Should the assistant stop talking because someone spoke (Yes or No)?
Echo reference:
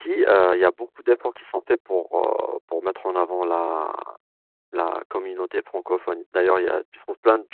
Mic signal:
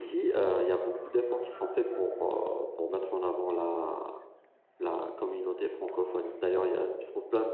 No